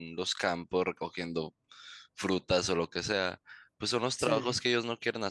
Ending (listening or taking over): listening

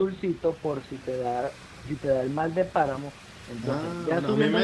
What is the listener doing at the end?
taking over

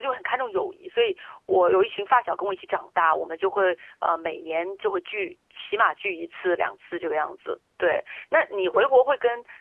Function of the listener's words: listening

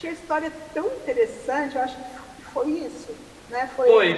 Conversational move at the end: taking over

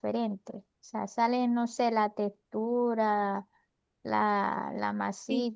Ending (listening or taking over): taking over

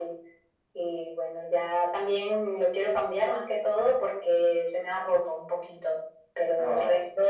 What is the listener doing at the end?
listening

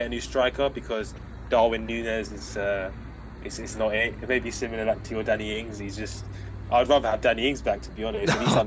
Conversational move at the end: listening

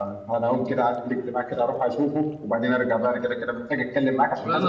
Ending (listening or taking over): taking over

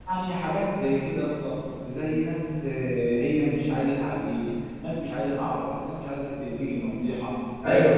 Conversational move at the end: taking over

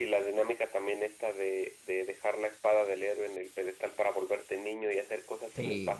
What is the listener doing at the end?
listening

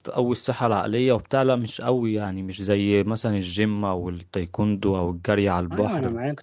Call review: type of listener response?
taking over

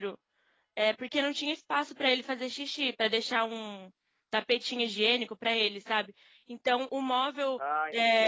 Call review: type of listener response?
listening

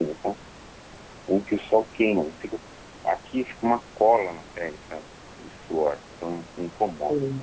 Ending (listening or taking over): taking over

